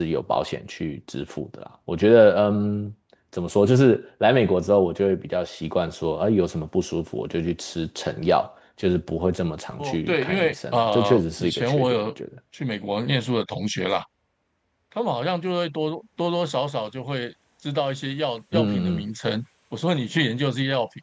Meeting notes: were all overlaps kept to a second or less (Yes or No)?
No